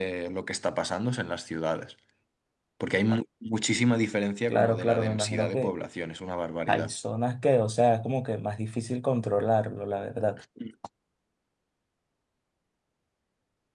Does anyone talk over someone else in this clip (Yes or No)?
Yes